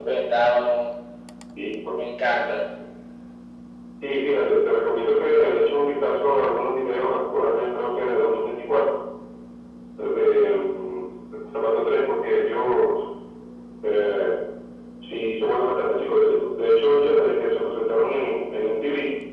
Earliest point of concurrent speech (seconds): none

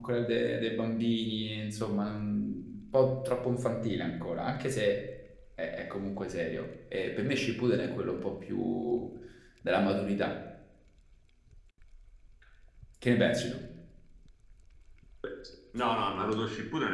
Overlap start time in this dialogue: none

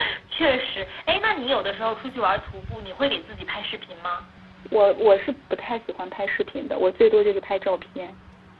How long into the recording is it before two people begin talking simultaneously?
none

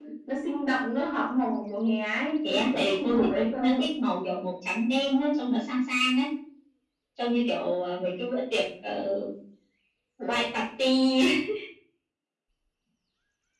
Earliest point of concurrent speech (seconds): 2.4 s

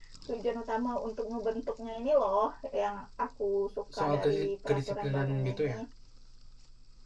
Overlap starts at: 3.9 s

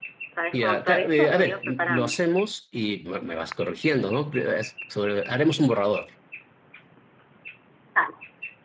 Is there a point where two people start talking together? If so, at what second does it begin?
0.5 s

